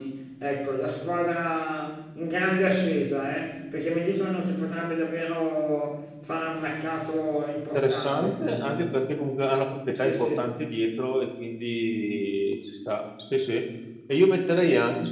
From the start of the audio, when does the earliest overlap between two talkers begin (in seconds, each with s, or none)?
7.7 s